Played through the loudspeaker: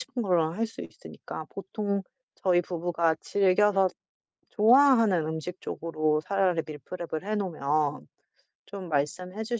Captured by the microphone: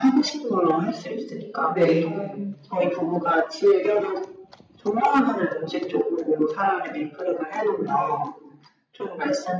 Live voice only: 네.

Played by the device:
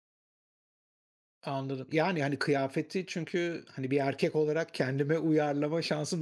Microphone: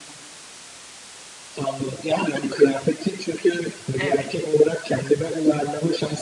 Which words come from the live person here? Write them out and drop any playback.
Evet,

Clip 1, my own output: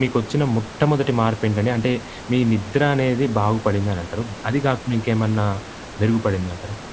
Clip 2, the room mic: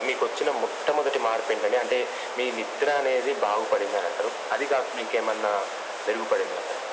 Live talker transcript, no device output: none

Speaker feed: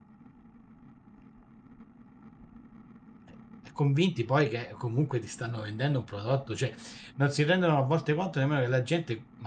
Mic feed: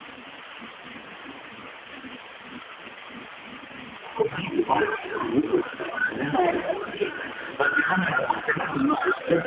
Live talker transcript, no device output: certo.

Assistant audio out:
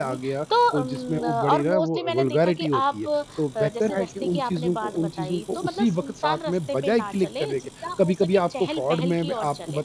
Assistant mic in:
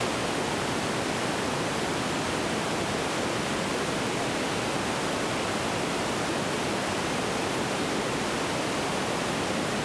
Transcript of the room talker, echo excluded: none

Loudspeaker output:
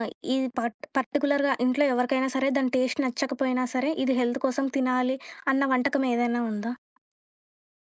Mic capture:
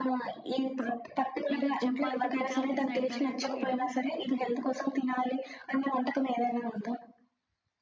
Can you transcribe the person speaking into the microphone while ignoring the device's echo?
ఇంకా చెప్పాలంటే గుజరాతీ సైడ్ గాని, అటు ఇటు

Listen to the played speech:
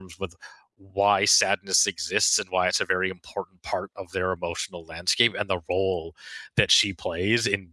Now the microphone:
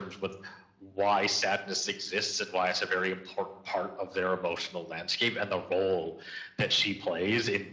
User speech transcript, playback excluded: none

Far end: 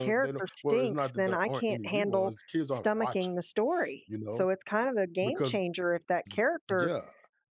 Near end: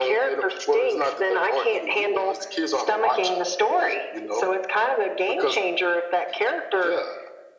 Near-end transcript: none

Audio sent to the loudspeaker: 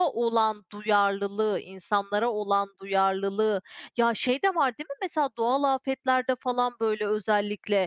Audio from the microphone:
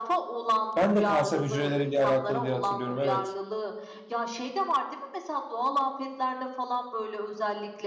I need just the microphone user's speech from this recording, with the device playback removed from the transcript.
Ben de kanser hücreleriyle alakalı diye hatırlıyorum, evet.

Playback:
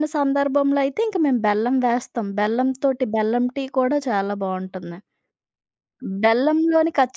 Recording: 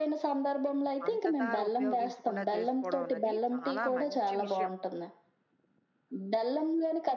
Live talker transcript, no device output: పంచదార ఉపయోగించకుండా చేసుకోవడం అన్నది చాలా మంచి విషయం.

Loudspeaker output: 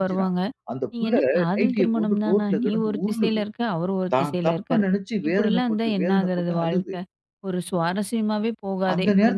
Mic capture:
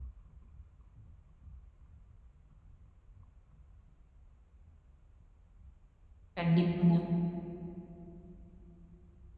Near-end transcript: கண்டிப்பாங்க.

